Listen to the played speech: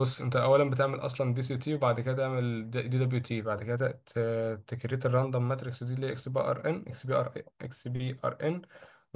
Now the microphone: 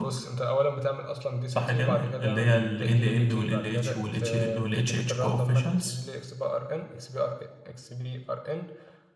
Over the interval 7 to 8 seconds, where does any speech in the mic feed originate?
echo only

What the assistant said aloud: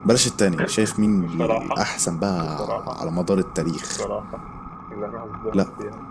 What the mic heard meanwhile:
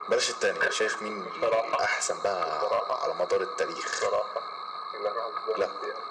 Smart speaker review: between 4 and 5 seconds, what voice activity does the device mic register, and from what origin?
echo only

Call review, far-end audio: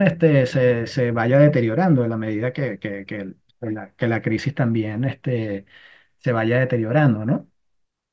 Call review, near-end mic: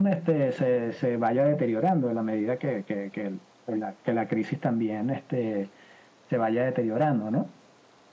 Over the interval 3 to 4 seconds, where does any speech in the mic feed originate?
echo only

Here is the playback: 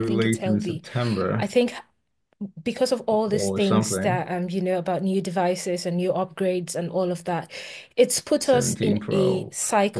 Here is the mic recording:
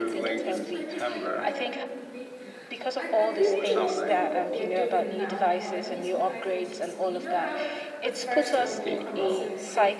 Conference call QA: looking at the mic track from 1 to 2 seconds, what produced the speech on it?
both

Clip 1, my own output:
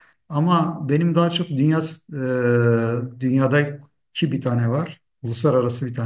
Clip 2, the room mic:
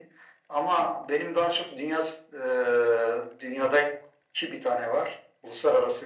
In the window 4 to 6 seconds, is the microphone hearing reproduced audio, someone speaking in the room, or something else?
echo only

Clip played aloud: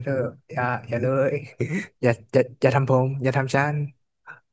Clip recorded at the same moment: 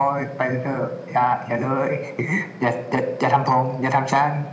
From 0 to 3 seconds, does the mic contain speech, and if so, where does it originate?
echo only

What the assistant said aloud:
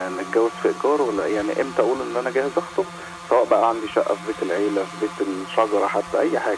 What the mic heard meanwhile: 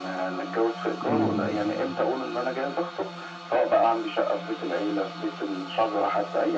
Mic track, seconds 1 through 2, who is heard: both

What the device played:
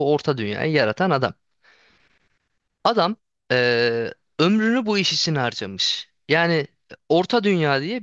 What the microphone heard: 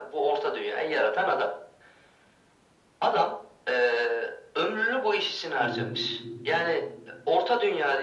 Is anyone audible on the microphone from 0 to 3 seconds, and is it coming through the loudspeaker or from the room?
echo only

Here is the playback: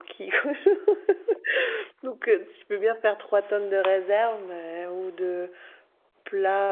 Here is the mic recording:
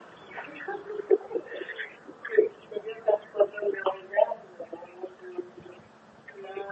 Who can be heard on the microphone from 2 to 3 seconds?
echo only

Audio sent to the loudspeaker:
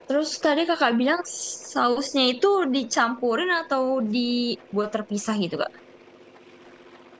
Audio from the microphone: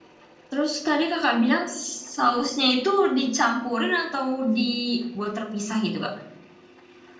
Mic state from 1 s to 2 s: echo only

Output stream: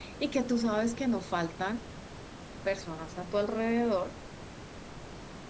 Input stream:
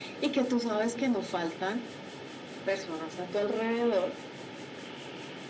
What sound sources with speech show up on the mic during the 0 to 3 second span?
echo only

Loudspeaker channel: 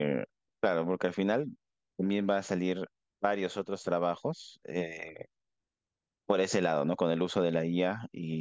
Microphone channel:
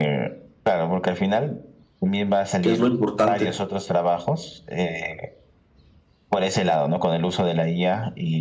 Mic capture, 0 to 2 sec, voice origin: echo only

